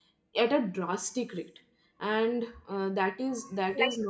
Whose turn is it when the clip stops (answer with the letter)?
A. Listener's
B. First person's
A